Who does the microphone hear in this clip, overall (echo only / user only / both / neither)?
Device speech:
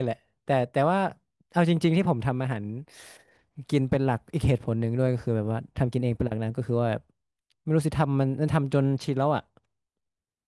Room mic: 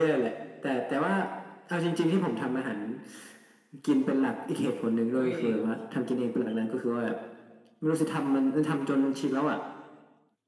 both